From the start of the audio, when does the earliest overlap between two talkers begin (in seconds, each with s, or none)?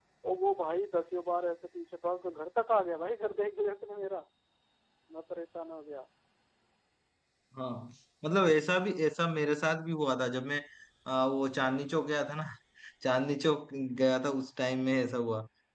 none